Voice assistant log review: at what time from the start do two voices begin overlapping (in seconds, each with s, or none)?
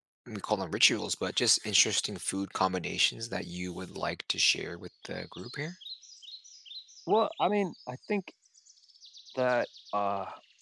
none